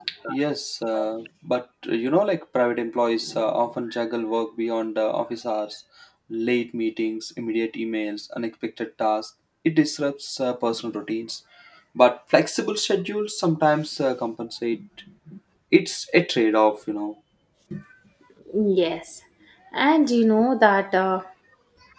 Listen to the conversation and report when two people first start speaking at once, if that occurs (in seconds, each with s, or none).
none